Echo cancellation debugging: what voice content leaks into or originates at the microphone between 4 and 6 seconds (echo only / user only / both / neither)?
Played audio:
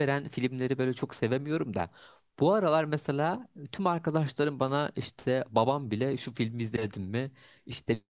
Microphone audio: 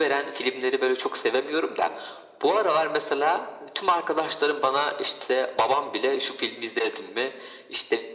echo only